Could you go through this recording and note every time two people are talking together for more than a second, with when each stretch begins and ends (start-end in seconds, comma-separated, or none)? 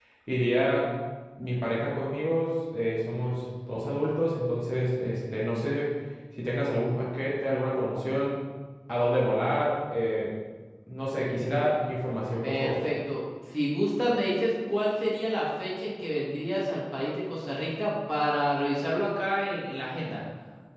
none